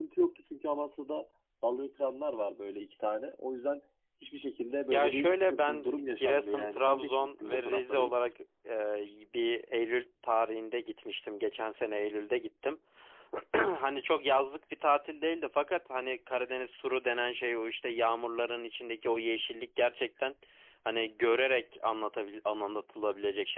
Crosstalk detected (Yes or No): Yes